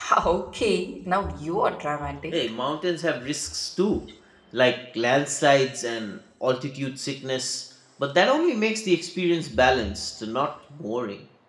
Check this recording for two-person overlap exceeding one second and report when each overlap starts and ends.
none

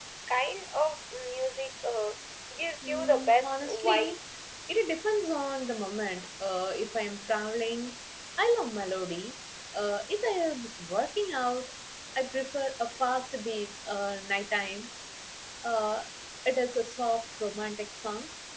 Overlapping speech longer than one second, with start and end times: 2.8-4.2

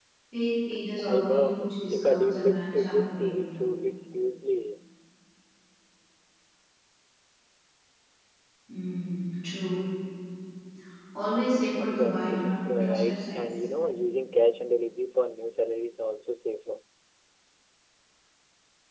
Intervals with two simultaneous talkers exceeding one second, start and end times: 1.1-3.5, 11.8-13.4

